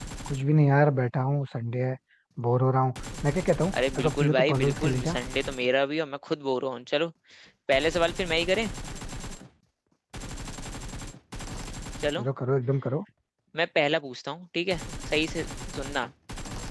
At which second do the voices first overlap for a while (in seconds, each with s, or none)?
3.7 s